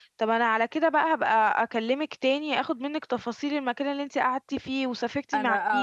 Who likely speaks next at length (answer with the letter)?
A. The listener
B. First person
A